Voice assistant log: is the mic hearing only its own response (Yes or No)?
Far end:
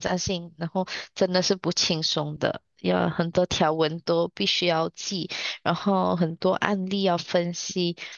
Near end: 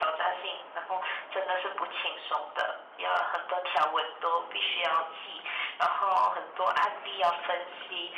Yes